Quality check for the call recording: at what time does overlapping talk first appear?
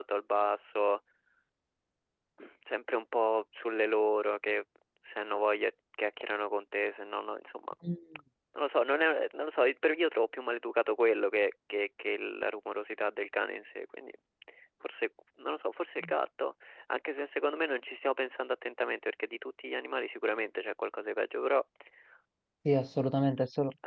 none

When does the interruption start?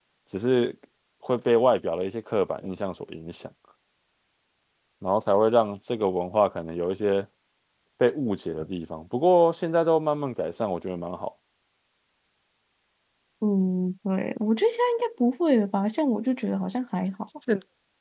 none

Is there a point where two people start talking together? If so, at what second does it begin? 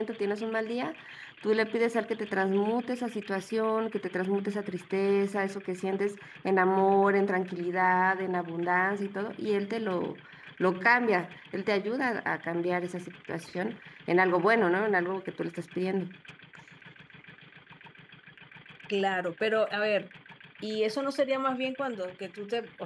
none

